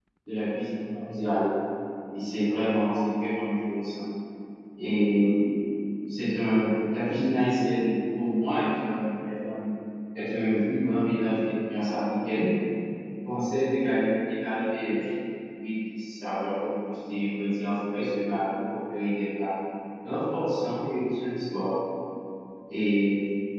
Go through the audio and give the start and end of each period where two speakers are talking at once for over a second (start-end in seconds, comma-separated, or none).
none